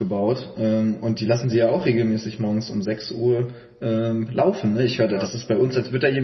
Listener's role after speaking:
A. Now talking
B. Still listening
B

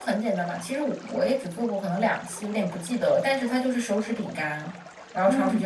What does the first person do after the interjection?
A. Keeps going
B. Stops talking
A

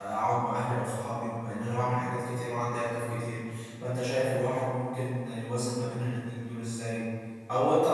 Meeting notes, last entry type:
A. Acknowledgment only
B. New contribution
A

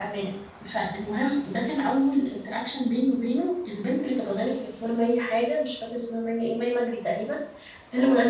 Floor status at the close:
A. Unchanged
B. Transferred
A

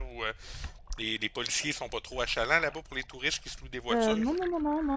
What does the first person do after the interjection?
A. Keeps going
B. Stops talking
B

